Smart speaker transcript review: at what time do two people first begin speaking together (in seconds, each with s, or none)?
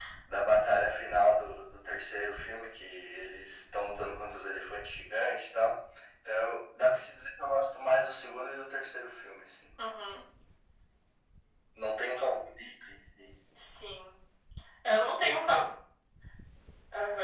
none